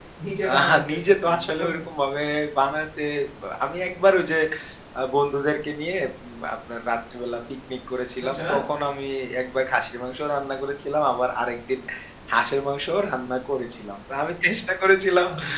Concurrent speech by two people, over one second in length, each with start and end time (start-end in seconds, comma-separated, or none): 0.6-1.8